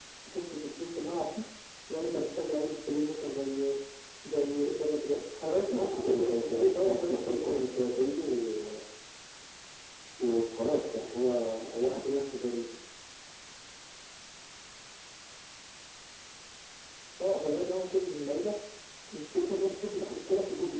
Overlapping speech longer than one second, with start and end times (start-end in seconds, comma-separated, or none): 5.7-7.6